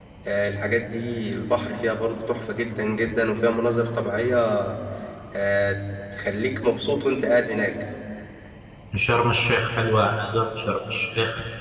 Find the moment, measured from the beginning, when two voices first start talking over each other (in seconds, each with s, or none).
none